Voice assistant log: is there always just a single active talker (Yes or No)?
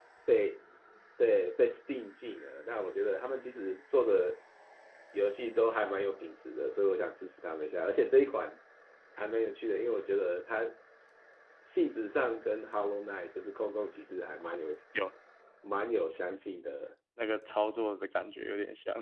Yes